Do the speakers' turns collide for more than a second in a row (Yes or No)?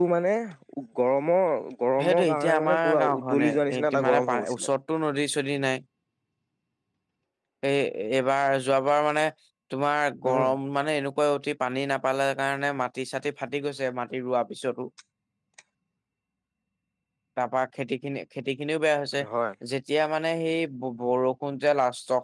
Yes